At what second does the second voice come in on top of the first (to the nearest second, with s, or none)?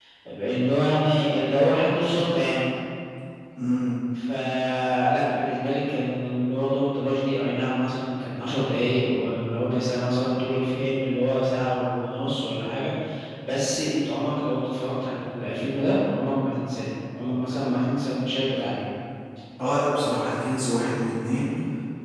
none